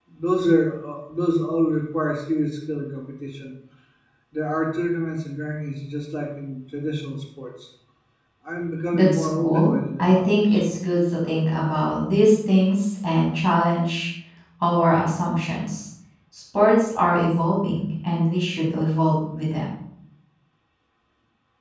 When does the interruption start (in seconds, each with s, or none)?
8.9 s